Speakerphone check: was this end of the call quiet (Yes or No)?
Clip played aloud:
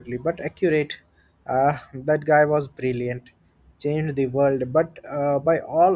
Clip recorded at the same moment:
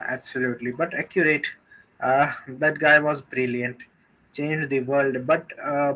Yes